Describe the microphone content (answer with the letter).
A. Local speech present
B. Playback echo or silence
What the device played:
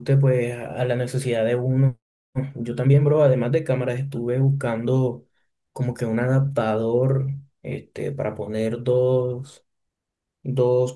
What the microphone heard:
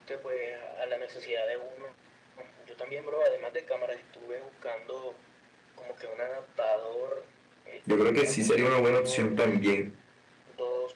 A